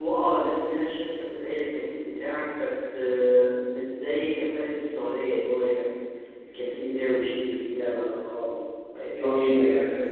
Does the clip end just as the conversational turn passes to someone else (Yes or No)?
Yes